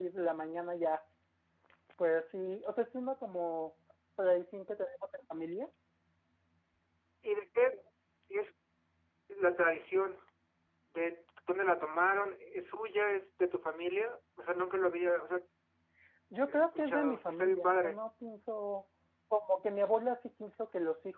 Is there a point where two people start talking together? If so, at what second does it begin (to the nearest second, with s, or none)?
16 s